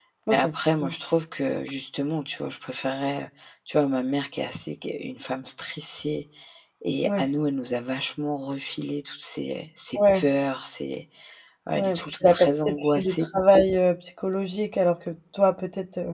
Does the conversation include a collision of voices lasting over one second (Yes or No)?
Yes